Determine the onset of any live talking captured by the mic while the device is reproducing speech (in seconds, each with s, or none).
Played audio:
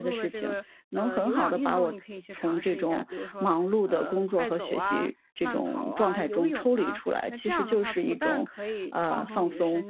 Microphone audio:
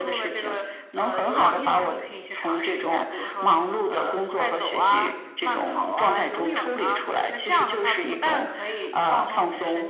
none